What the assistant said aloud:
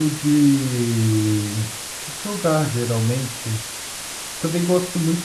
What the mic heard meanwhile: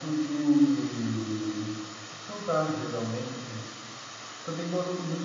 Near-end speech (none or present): none